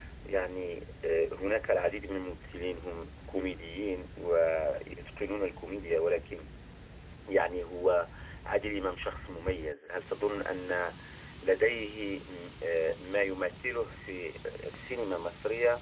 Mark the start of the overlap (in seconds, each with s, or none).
none